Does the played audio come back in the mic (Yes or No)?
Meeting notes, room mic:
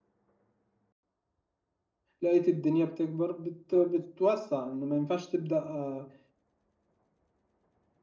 No